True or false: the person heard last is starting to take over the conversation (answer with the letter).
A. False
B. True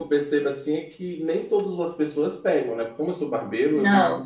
A